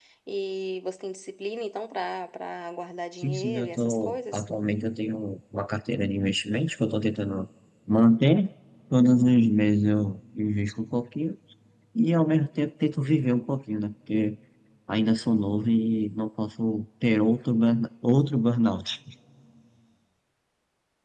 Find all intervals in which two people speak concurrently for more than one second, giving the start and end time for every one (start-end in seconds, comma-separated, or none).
3.2-4.4